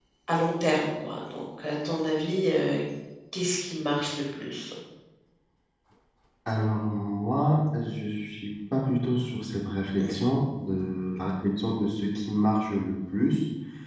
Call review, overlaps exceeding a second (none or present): none